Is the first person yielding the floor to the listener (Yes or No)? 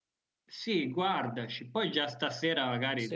No